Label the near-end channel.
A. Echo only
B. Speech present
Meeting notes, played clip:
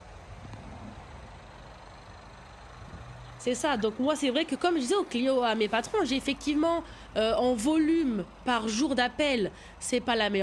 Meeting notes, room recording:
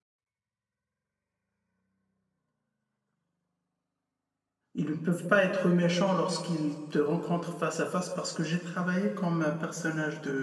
B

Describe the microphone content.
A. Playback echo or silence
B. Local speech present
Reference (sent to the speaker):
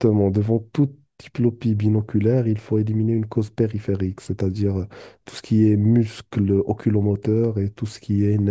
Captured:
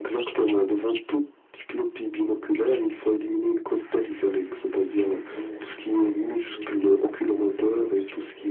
B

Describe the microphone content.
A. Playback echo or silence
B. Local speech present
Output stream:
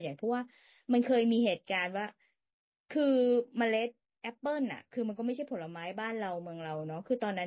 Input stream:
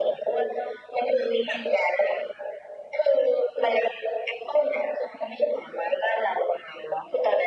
A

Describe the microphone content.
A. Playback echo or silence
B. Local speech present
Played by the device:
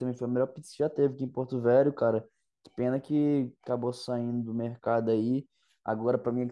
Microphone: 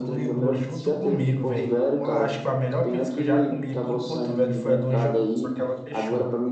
B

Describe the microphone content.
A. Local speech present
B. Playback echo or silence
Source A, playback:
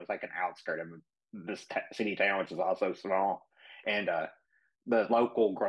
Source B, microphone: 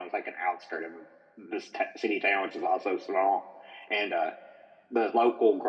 B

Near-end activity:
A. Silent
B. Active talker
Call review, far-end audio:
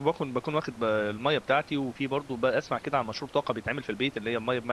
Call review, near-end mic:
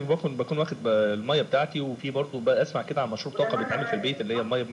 B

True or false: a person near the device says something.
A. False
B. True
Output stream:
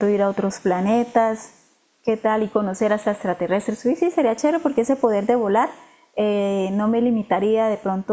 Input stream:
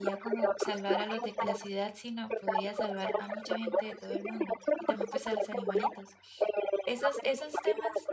B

